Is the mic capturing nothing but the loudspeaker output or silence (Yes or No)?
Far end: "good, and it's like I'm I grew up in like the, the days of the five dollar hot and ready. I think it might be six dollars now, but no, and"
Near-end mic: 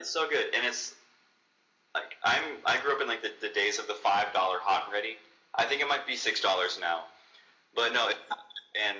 Yes